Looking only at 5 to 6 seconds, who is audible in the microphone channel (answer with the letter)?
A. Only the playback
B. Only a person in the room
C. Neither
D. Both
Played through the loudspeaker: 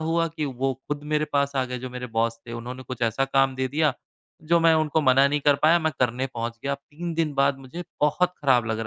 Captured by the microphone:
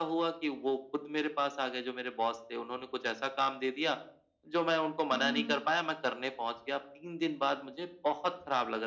D